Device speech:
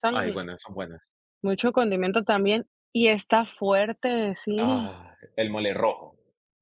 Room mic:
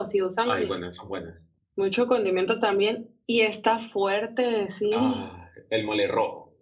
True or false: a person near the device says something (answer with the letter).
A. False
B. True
A